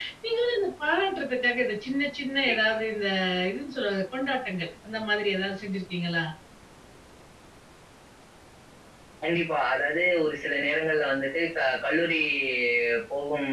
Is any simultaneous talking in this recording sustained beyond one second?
No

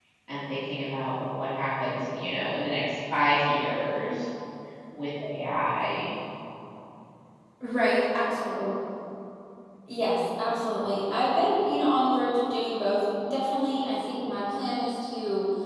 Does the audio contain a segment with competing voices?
No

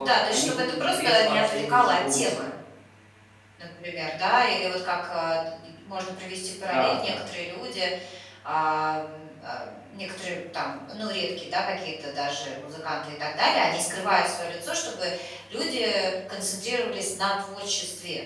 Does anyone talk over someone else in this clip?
Yes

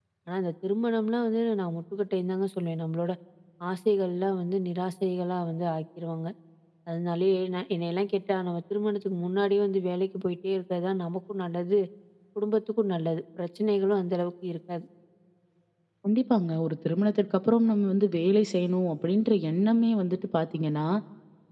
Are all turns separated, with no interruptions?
Yes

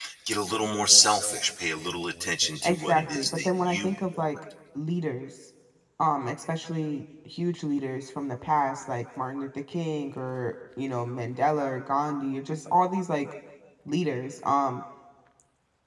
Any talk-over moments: Yes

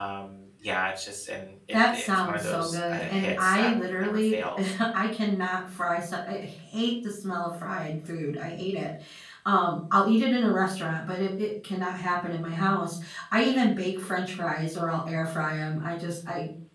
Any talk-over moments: Yes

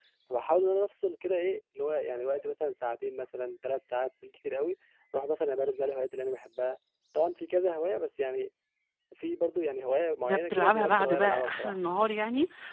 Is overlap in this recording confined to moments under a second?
No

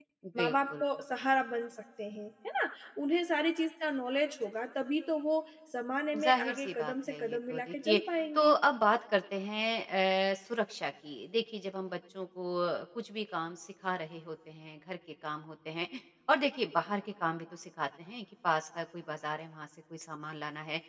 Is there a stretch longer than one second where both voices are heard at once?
Yes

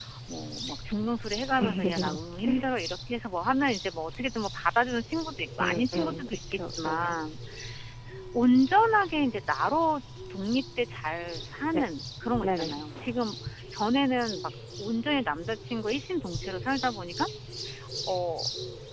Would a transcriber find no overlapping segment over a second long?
No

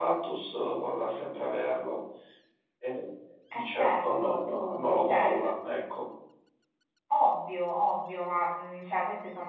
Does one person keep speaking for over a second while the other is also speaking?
Yes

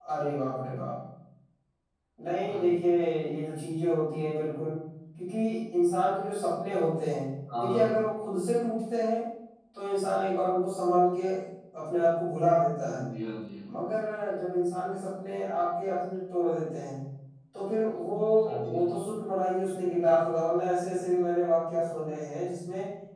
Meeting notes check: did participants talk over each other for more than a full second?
No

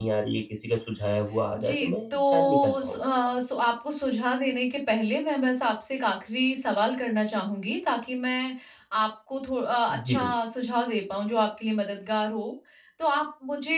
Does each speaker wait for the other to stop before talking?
No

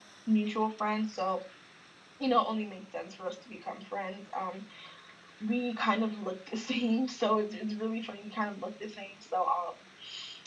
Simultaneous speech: No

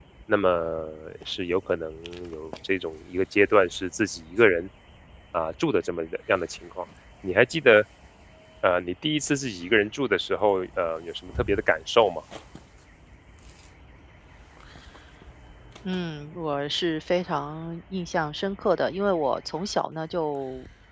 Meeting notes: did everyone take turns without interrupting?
Yes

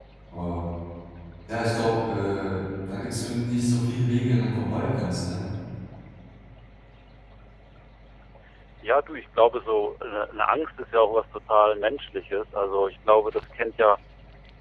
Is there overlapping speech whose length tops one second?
No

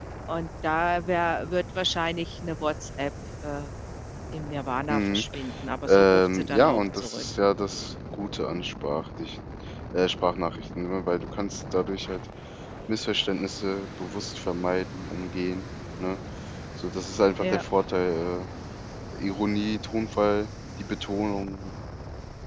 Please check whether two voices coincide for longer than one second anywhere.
Yes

